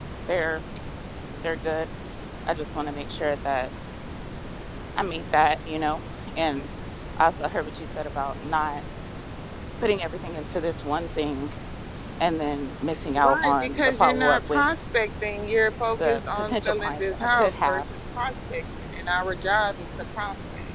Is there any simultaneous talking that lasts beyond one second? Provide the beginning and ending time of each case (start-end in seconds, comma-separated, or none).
13.2-14.6, 16.0-17.8